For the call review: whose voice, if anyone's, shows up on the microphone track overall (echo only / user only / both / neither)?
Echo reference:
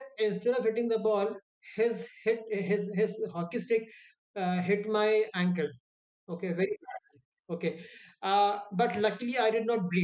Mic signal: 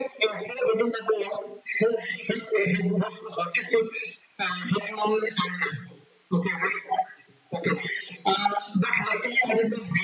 echo only